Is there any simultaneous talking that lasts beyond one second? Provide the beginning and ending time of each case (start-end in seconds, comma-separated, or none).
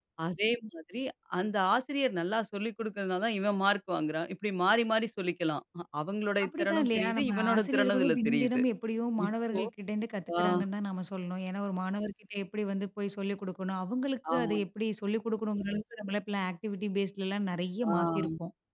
6.5-8.6